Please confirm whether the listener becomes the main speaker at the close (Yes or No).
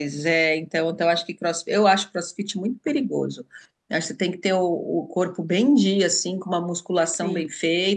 No